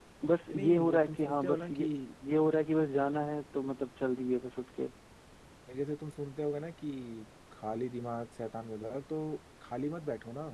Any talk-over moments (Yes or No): Yes